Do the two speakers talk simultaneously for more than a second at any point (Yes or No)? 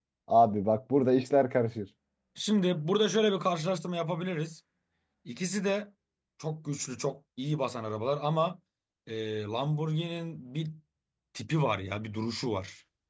No